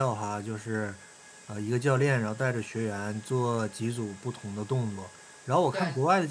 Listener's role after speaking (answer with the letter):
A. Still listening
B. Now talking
A